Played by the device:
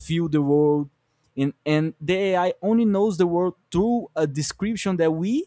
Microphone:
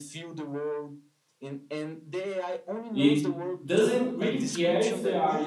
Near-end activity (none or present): present